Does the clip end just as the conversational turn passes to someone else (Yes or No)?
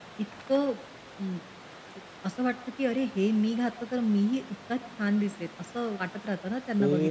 Yes